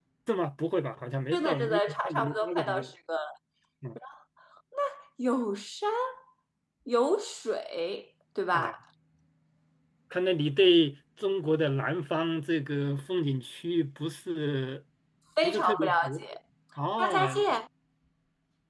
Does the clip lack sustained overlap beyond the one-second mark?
No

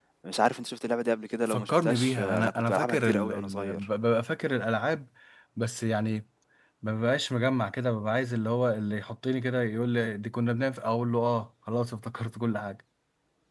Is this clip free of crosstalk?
No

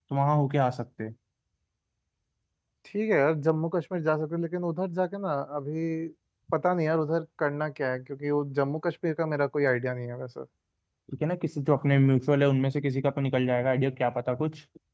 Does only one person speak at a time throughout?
Yes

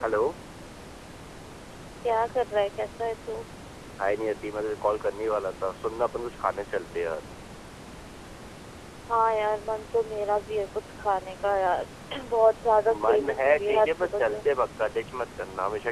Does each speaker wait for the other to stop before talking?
No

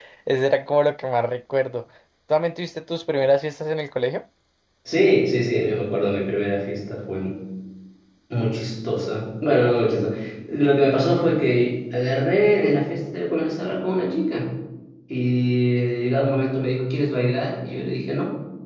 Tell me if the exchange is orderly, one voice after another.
Yes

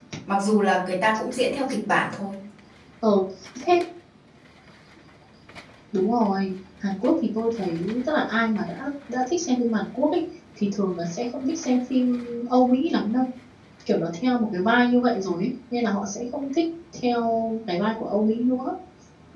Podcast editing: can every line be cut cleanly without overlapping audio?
Yes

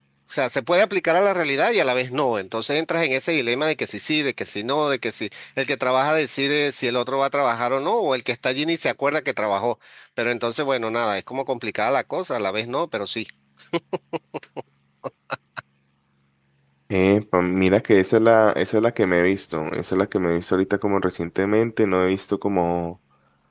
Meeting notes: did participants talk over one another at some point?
No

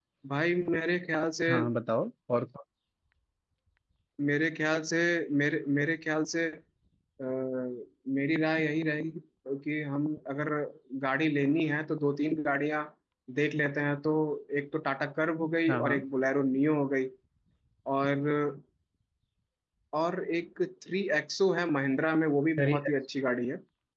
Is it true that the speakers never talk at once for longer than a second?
Yes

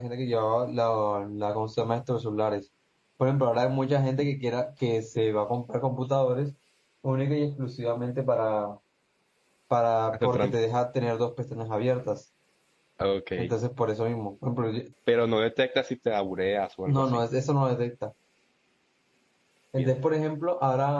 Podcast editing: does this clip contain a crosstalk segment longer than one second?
No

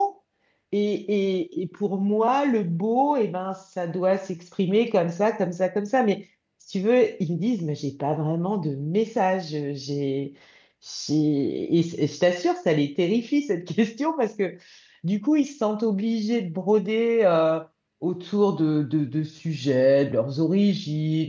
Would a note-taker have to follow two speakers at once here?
No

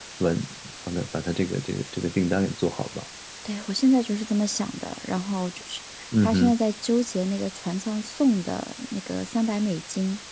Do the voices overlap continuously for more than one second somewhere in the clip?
No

